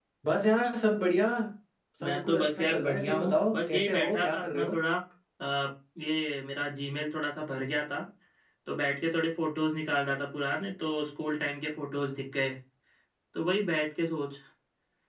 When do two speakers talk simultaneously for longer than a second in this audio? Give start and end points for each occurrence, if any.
2.0-4.8

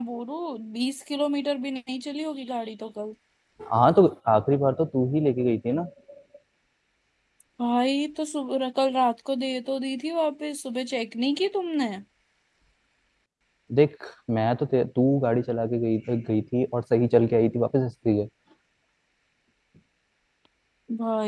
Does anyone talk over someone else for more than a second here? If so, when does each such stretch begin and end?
none

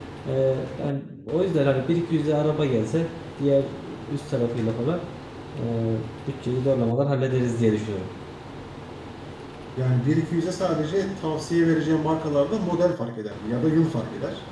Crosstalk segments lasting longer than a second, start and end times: none

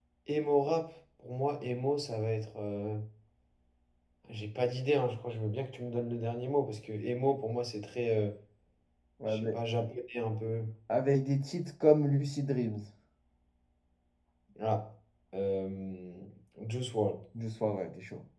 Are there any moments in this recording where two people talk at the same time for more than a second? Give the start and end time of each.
none

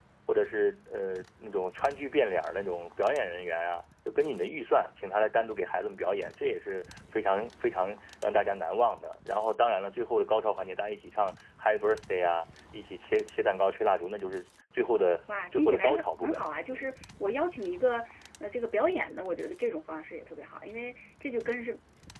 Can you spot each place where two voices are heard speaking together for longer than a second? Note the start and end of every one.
15.5-16.9

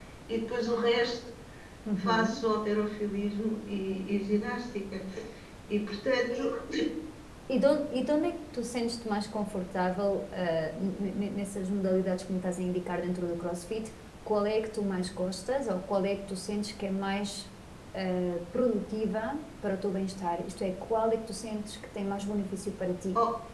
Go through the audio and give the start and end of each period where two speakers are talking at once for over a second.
none

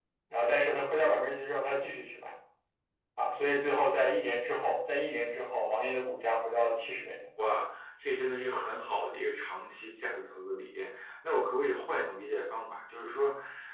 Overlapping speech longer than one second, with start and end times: none

